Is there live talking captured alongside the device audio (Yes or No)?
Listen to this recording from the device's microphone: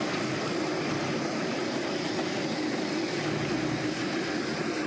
No